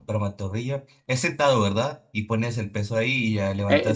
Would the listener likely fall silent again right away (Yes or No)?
No